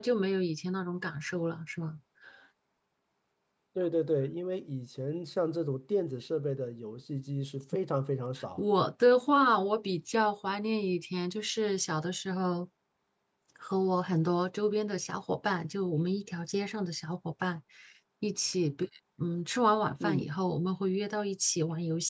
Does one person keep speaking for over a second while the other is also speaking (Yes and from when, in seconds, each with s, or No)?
No